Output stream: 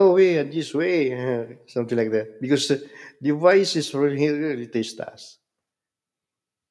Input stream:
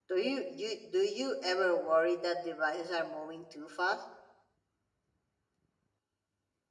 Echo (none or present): none